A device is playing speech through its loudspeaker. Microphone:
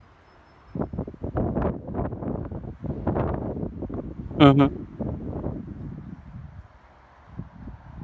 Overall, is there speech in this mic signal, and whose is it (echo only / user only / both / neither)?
user only